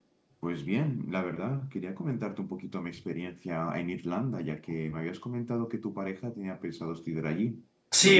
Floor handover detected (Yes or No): Yes